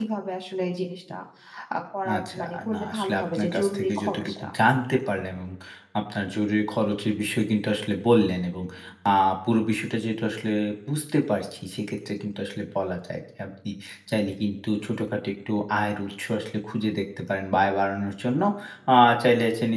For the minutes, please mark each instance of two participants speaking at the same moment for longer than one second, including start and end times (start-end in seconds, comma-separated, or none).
2.2-4.5